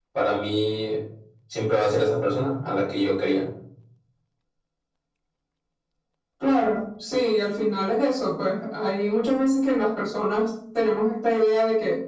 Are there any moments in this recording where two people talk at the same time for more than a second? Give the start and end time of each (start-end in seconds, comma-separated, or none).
none